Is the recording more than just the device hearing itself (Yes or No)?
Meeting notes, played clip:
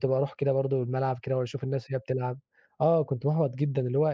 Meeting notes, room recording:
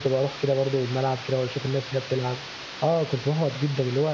No